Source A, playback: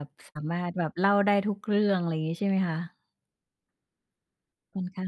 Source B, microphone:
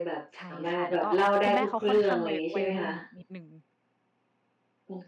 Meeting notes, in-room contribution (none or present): present